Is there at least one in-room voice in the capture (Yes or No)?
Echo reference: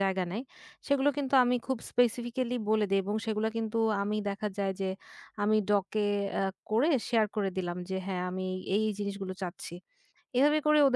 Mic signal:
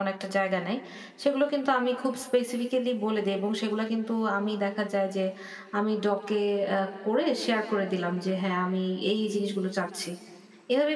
No